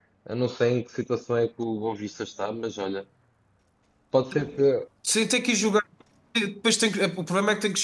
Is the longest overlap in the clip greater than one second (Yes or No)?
No